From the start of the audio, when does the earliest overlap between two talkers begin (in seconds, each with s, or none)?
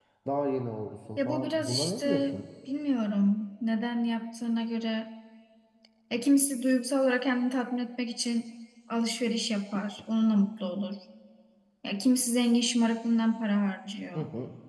1.2 s